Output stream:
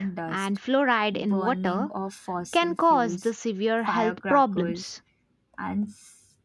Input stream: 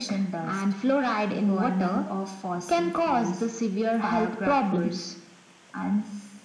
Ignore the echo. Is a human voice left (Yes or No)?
No